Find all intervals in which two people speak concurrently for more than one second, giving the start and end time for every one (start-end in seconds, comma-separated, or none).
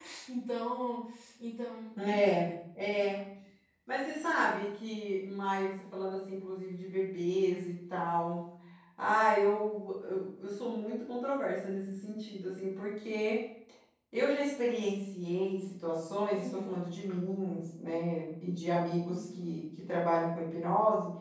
none